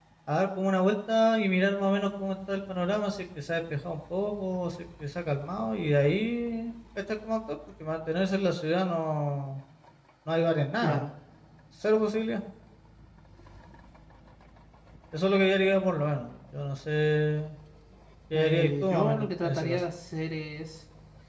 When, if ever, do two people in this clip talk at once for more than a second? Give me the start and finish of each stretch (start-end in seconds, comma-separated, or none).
18.3-19.8